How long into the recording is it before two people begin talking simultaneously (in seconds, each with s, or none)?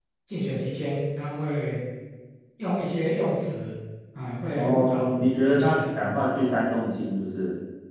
4.5 s